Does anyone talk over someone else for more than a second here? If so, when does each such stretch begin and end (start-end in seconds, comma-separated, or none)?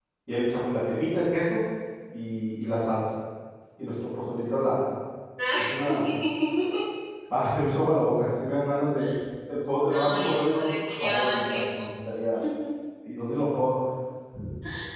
9.8-11.8